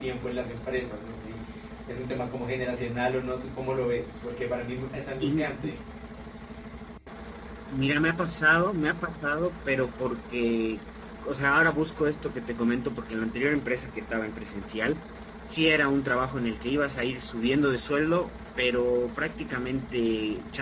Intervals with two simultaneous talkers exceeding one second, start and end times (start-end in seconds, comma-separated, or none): none